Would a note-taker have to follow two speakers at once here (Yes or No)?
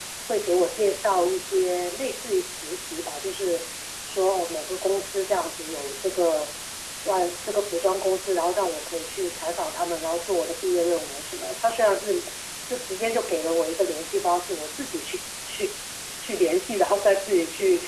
No